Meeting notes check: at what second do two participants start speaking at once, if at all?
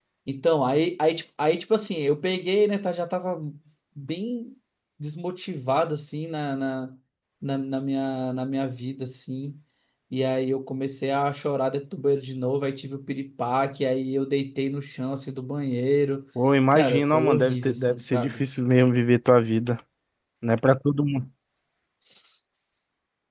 16.7 s

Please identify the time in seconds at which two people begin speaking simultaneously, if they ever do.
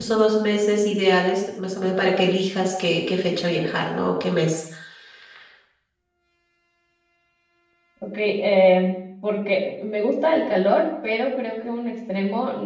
none

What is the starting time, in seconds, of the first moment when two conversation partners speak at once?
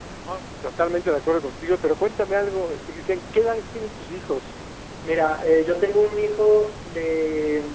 none

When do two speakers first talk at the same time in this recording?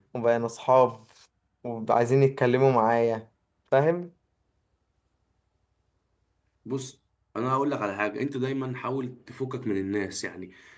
none

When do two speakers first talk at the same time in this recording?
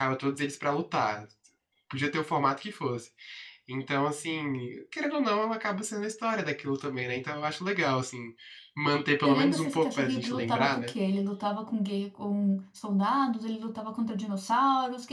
9.2 s

